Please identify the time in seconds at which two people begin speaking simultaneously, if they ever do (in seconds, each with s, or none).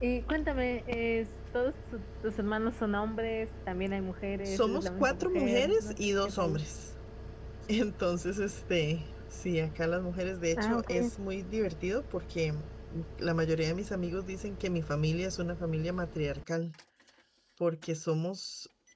4.4 s